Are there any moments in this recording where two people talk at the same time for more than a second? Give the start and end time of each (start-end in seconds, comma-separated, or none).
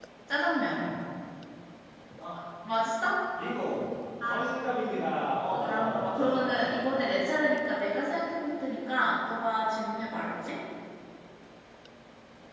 5.5-6.9